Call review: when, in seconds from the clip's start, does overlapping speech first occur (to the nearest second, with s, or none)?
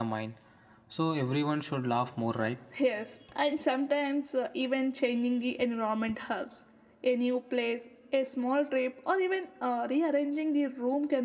none